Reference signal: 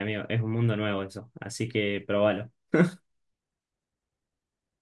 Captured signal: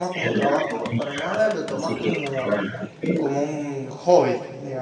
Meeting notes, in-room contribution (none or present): present